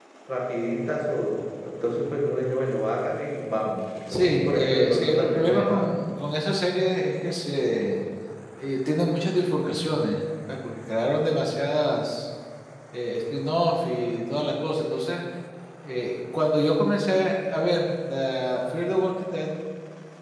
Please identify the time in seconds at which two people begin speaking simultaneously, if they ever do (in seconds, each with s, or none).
4.1 s